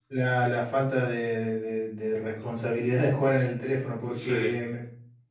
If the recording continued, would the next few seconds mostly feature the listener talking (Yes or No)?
No